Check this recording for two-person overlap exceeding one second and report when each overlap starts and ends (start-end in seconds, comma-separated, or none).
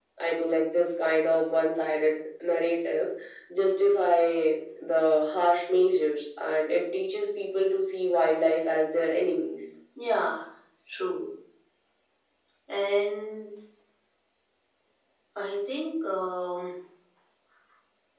none